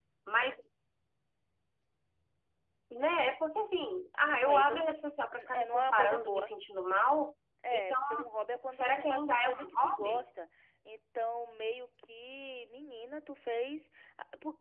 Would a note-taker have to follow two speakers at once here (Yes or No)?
Yes